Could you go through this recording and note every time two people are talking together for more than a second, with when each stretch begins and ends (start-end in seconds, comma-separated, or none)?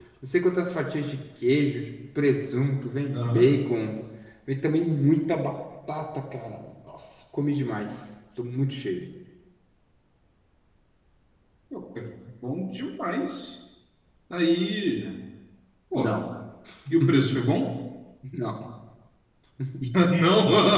none